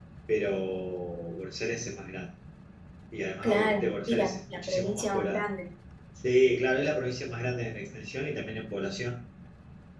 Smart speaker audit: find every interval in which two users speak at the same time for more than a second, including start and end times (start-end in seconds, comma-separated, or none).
3.4-5.4